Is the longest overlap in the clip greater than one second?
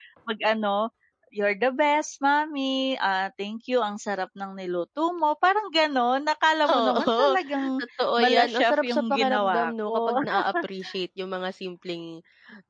Yes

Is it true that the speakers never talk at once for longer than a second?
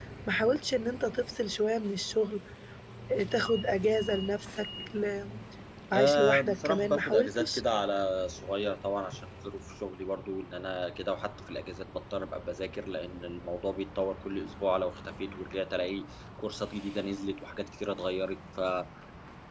No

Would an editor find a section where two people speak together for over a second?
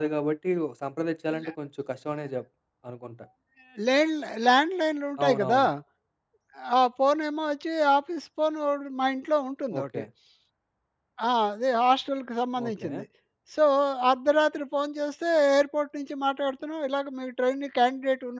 No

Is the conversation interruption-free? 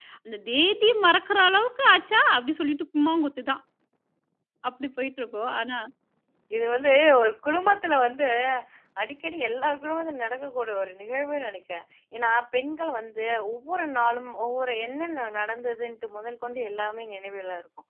Yes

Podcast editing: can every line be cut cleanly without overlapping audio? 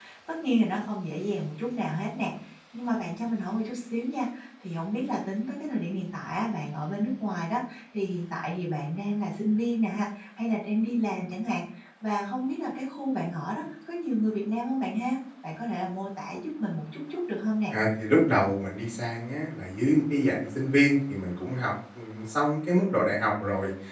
Yes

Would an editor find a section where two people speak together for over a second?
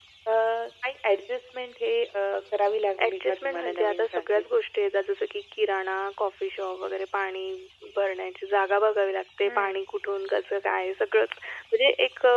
Yes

